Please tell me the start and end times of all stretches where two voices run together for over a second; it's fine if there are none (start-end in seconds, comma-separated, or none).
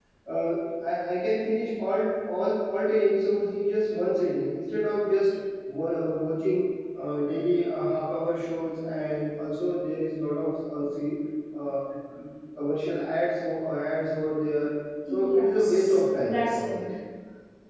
15.1-16.8